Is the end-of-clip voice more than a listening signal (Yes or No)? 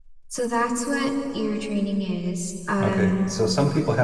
Yes